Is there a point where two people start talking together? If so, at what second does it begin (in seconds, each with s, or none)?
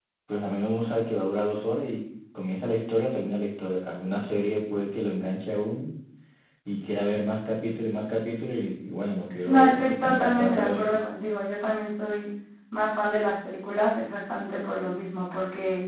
9.5 s